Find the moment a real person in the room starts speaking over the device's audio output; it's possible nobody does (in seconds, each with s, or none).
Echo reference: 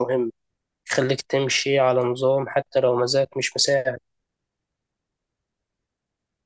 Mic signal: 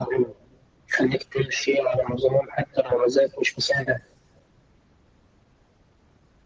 none